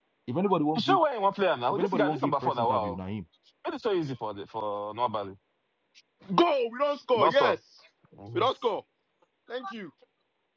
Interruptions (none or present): present